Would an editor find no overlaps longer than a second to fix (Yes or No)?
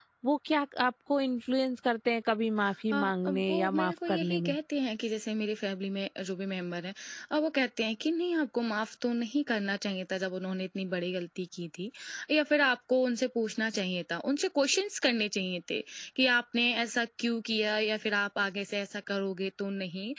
No